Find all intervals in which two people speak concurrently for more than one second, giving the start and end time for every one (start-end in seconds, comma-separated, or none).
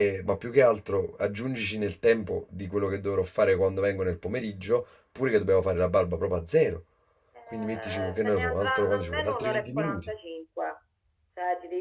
7.5-10.1